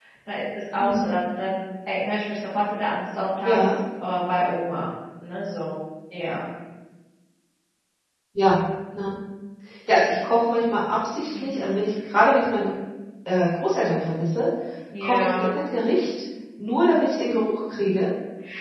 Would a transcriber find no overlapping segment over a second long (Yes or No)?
Yes